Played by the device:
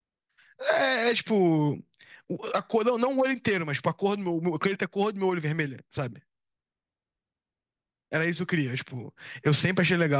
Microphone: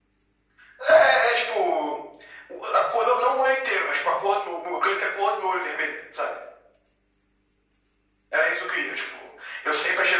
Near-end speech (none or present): none